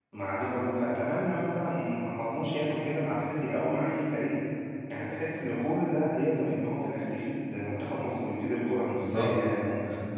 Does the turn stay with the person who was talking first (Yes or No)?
No